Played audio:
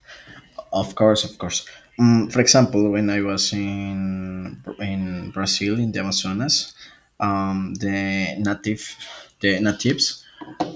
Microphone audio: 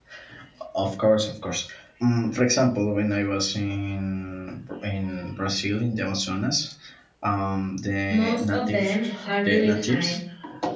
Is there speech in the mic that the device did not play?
Yes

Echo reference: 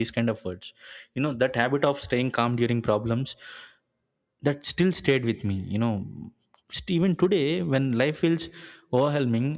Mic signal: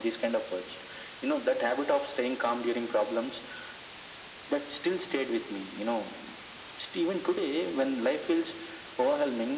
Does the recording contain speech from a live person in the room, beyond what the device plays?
No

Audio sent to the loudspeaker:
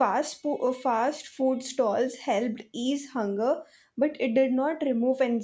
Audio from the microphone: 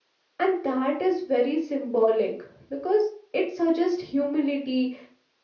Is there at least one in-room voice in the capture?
Yes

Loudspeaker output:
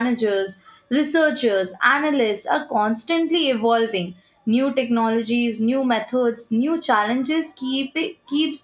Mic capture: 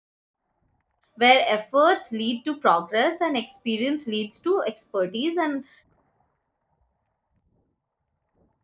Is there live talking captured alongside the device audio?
Yes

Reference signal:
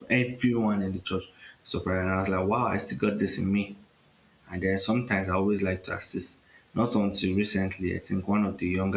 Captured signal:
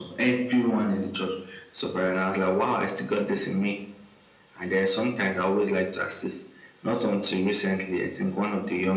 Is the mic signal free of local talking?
Yes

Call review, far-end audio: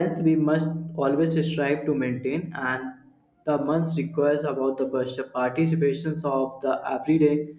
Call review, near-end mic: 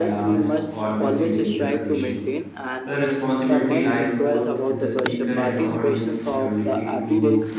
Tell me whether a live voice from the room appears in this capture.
Yes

